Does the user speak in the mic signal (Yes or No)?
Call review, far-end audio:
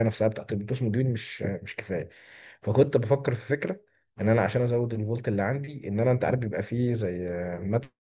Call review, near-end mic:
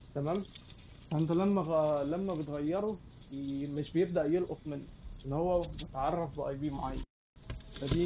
Yes